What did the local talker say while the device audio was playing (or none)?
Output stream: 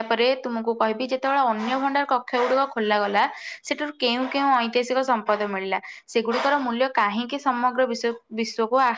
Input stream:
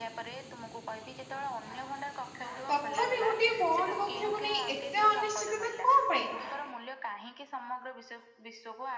ତଥାପି ଗୋଟଏ ବନ୍ଦ କକ୍ଷକୁ ନେଇ ଏତେ ଅନିଶ୍ଚିତତା କଣ ପାଇଁ?